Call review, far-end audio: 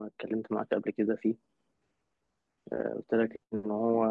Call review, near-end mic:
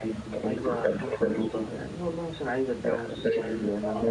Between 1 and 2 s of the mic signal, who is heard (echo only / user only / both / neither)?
both